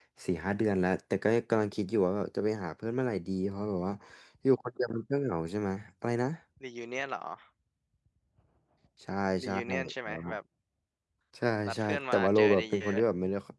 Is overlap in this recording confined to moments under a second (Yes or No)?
No